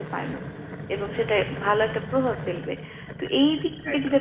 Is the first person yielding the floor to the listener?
No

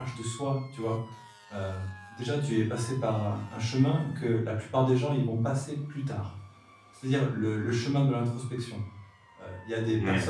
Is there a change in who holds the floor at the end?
No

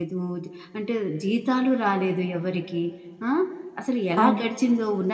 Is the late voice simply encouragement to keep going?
Yes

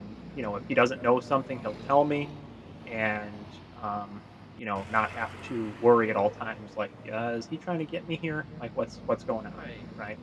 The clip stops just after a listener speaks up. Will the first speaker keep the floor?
No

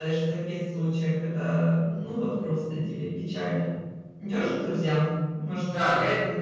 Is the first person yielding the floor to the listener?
Yes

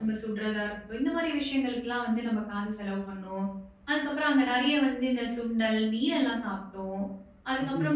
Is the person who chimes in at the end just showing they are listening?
Yes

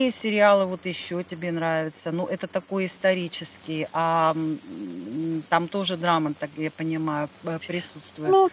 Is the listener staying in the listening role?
No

